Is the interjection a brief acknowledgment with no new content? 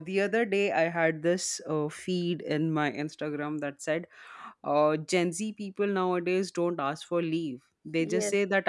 Yes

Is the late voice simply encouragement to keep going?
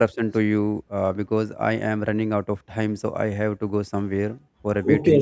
No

